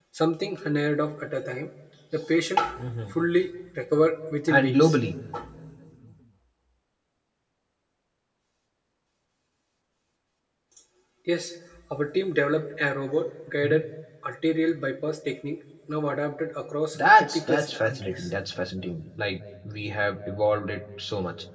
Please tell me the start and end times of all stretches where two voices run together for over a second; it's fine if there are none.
16.9-18.3

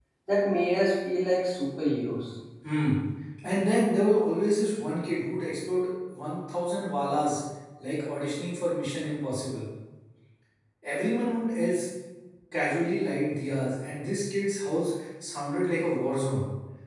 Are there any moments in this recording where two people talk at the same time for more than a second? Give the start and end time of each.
none

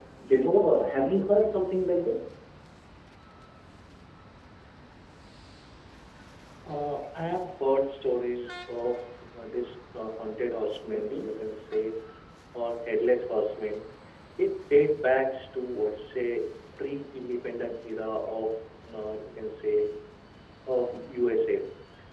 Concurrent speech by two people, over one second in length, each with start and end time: none

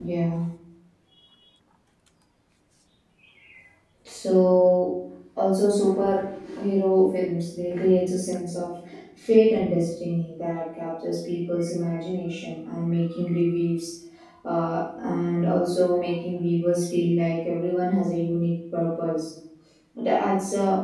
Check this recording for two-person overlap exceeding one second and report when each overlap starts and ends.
none

